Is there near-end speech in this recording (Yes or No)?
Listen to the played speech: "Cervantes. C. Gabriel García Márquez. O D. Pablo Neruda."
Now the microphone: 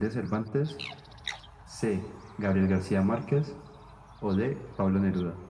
No